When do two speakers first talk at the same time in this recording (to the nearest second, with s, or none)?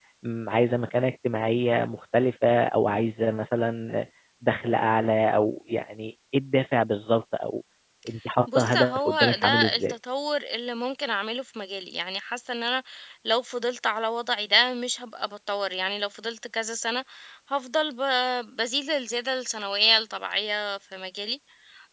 9 s